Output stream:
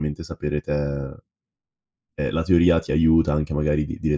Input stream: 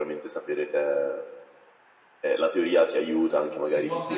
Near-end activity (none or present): present